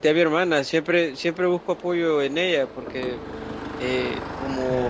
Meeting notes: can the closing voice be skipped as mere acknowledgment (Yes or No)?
No